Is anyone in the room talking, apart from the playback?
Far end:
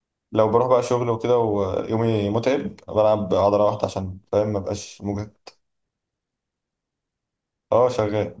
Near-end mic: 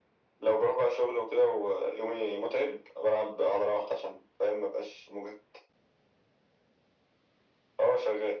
No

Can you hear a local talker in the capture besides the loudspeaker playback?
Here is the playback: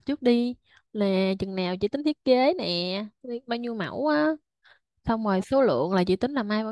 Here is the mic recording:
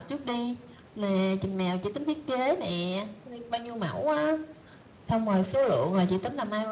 No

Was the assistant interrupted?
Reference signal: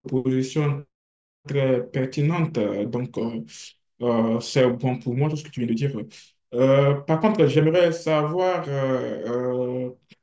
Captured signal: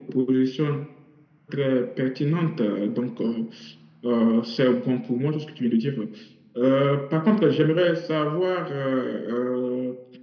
No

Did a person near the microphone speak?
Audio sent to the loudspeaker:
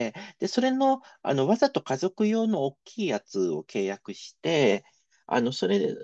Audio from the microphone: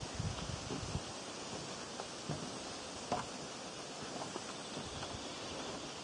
No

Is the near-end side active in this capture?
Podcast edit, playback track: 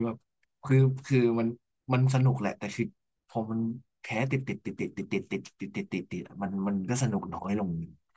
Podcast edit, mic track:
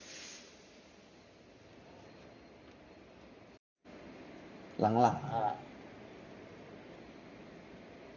Yes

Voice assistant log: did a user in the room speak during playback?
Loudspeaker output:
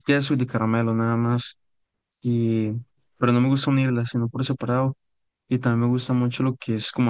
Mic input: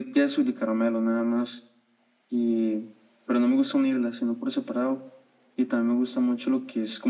No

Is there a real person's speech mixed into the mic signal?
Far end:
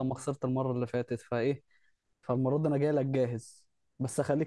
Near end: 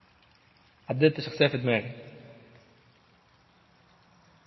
Yes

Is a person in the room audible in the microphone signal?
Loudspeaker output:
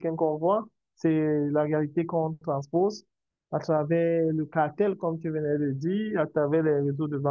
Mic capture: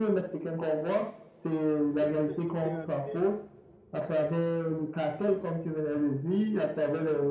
Yes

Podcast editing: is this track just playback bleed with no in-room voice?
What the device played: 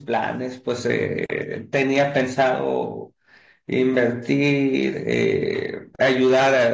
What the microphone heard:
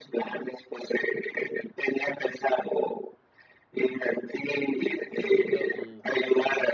No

